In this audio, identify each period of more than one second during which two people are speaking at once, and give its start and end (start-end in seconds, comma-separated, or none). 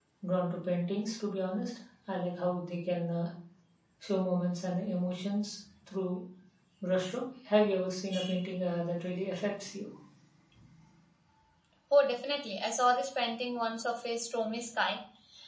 none